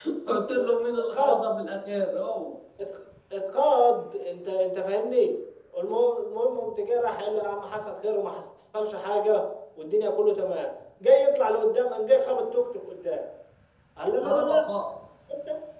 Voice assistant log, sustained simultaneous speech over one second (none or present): none